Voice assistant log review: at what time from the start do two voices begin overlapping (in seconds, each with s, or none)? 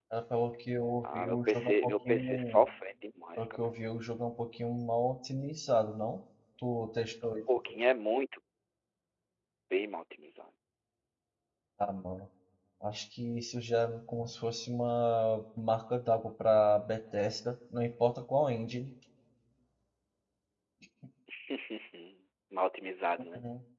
1.0 s